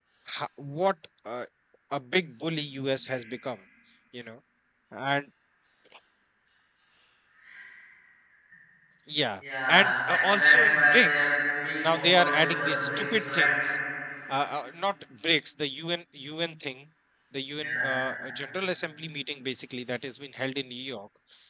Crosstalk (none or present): present